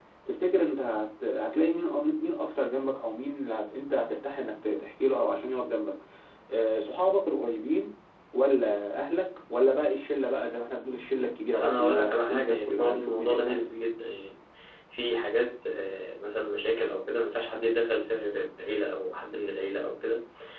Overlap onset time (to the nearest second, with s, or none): 12 s